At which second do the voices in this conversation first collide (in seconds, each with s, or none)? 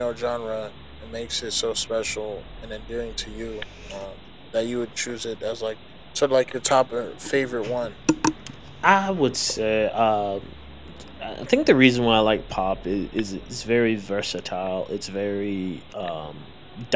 none